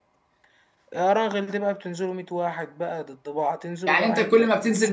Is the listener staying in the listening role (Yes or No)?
No